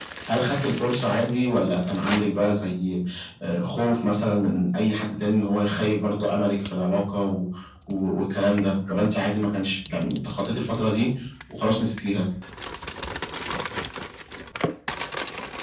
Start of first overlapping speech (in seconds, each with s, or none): none